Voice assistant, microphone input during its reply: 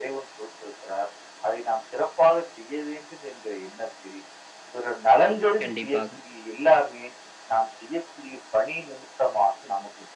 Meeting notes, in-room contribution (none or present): present